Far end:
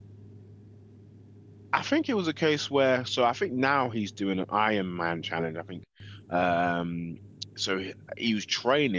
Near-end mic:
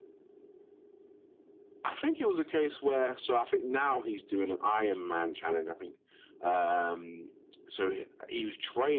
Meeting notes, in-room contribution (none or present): none